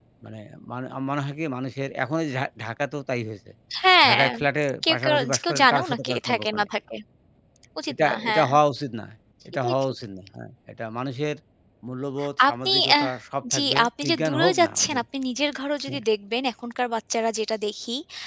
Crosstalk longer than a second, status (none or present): present